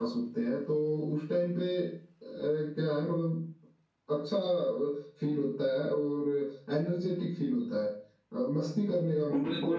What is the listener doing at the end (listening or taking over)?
taking over